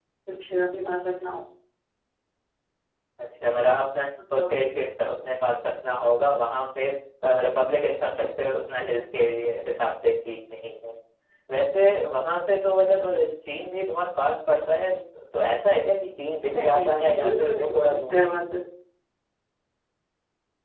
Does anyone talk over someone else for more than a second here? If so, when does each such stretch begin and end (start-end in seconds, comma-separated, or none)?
16.4-18.3